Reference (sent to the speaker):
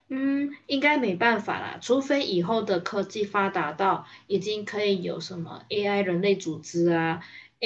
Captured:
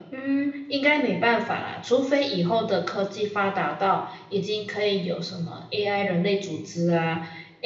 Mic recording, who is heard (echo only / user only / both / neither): echo only